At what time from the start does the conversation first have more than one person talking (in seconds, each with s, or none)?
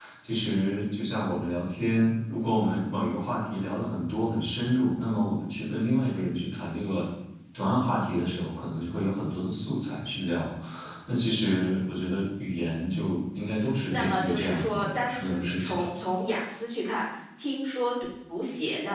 13.9 s